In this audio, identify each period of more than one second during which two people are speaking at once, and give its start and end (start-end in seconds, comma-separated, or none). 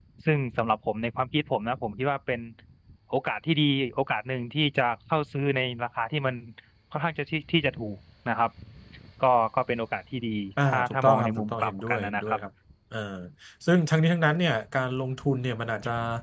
10.6-12.4